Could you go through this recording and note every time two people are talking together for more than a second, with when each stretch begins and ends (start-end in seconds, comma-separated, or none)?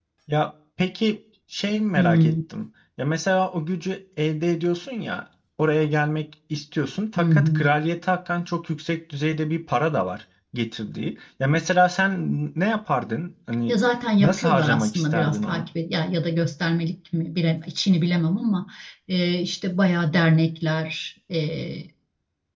14.2-15.7